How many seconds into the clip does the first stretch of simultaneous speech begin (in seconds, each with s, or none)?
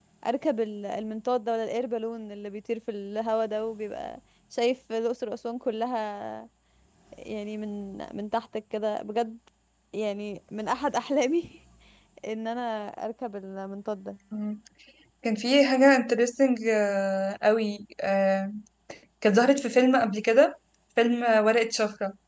none